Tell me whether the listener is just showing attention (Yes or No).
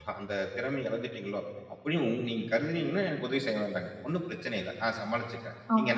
Yes